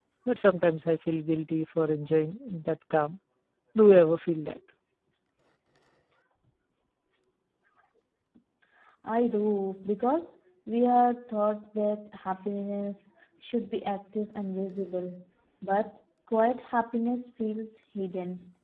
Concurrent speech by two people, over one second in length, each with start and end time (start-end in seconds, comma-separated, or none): none